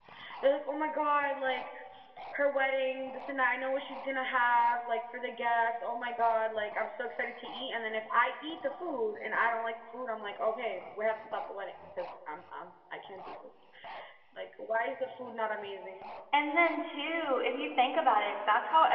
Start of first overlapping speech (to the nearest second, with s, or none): none